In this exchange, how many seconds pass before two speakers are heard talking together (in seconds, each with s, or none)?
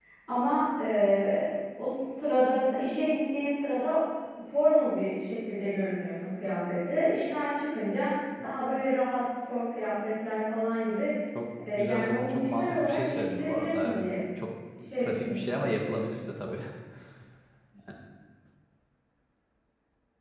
11.7 s